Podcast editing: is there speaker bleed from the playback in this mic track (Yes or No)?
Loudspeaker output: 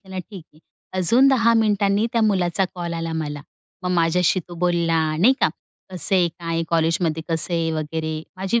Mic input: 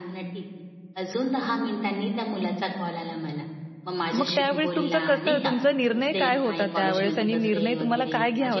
Yes